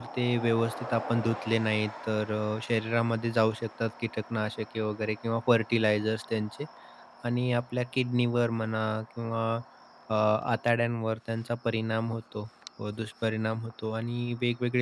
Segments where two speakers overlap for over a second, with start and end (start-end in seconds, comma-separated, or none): none